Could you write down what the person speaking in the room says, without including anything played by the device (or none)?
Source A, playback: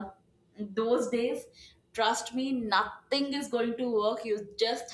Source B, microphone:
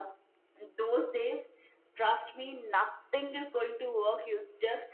none